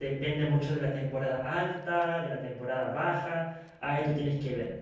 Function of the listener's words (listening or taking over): listening